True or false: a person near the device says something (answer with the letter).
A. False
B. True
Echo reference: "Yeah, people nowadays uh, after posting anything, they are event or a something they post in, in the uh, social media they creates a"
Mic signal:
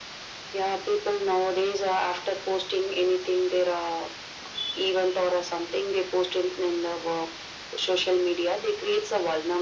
A